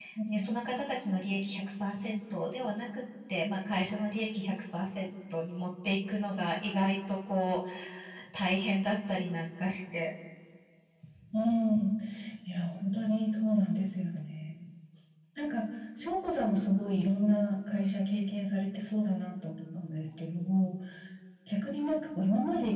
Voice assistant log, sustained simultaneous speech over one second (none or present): none